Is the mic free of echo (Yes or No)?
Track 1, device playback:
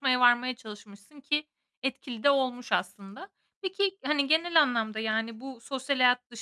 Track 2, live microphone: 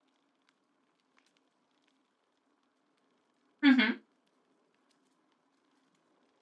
Yes